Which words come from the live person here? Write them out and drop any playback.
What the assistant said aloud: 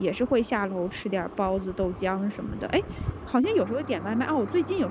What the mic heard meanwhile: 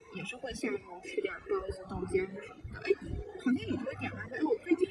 none

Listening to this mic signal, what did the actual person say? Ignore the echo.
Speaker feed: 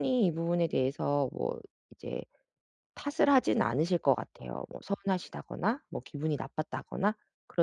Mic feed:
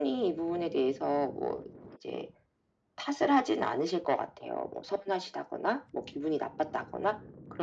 none

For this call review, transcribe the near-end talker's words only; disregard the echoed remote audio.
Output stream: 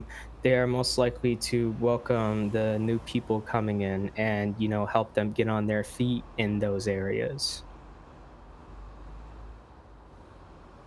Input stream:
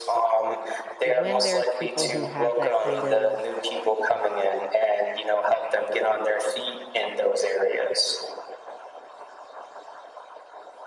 when there's people who have that kind of

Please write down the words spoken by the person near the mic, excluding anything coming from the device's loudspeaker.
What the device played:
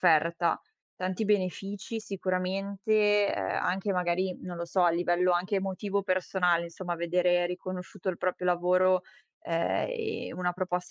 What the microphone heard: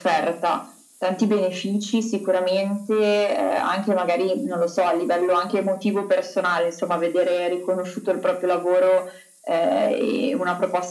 none

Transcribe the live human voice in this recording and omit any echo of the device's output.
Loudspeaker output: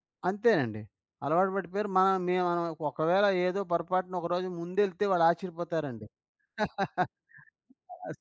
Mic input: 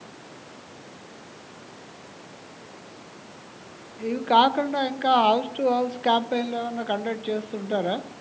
ఇవి కాకుండా ఇంకా హౌస్ టు హౌస్ క్యాంపెయిన్‌లేమన్నా కండక్ట్ చేస్తుంటారా?

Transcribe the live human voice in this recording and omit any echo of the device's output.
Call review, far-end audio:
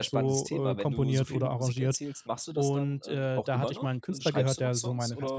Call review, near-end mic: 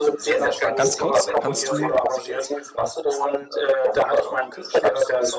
Ähm, ga ganz kurz, kannst du

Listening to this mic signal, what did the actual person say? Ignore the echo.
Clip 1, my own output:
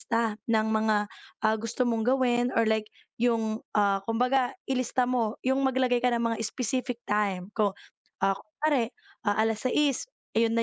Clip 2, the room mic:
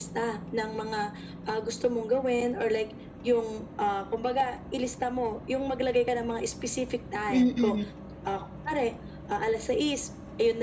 Mm, mm.

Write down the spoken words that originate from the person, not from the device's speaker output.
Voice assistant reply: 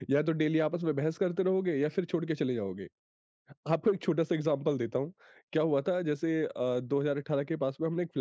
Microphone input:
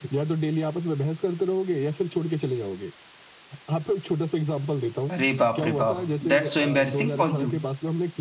अरे बाप रे बाप! दैट्स सो एम्बैरेसिंग फॉर यू।

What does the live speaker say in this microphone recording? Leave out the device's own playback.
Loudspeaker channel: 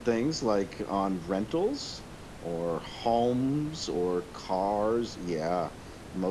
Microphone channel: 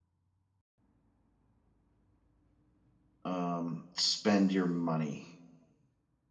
um spend your money.

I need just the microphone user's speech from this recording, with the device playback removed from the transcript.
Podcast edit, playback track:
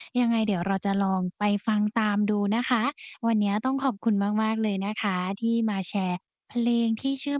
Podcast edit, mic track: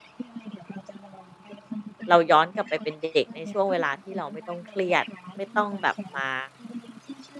เราย้อนกลับไปเป็นเด็กในช่วงเวลาที่เราไม่ต้องเครียดไม่ต้องแบบมา

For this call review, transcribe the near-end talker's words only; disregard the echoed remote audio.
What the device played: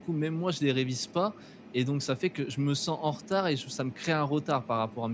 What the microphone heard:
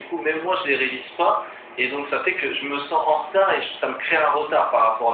none

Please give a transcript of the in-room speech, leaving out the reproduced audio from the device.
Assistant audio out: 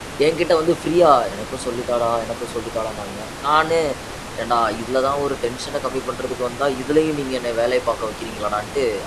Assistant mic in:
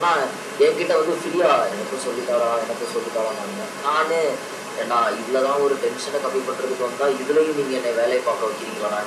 none

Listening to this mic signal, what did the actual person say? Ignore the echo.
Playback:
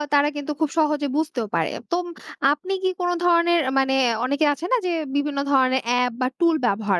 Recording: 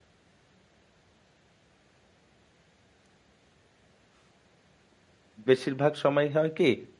বেশিরভাগ সময় হয় কি

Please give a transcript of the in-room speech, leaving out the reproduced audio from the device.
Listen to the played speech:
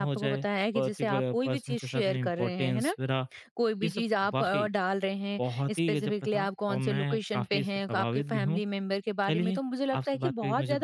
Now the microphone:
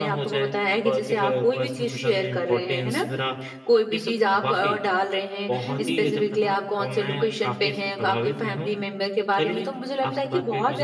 हुँ, हुँ।

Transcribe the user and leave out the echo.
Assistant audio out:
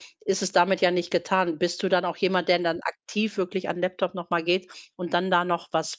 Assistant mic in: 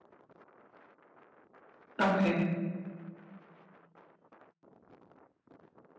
Okay.

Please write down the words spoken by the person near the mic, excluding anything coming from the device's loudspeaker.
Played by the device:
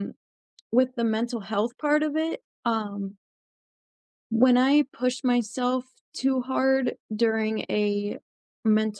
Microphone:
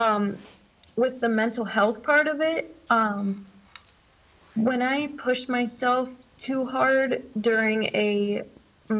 none

